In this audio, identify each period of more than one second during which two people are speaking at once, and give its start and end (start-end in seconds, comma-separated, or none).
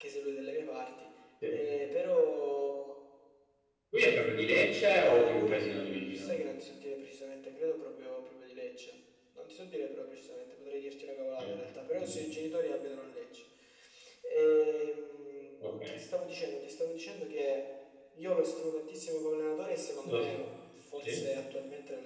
5.0-6.3